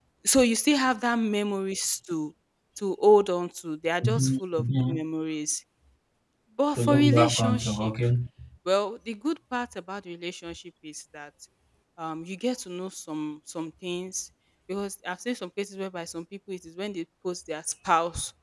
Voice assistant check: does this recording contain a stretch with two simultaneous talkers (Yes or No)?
Yes